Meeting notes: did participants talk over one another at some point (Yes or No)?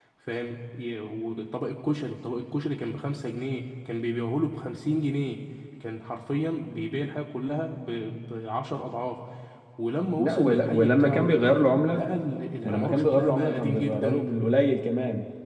Yes